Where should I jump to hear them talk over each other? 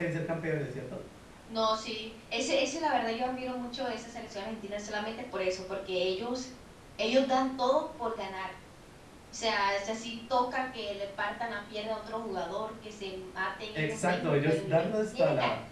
13.8 s

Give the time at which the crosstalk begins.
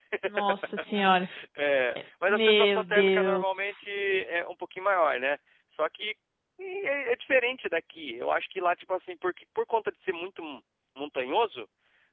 2.3 s

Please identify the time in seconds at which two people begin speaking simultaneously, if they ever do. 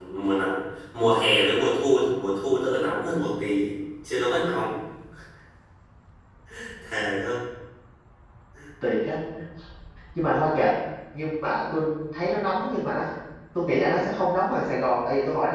none

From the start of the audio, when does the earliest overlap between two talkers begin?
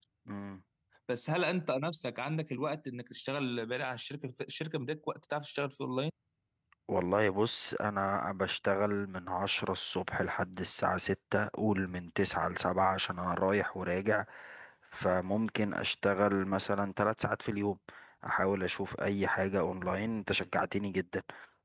none

